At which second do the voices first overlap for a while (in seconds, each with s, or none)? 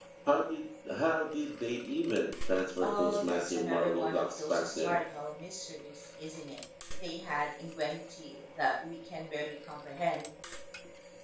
2.8 s